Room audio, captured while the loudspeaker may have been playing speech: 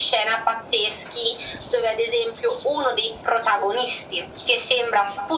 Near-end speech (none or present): none